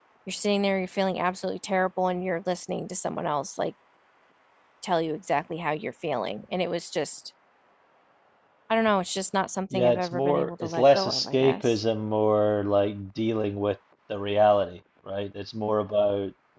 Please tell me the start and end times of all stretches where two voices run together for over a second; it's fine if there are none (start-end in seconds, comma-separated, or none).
9.7-11.8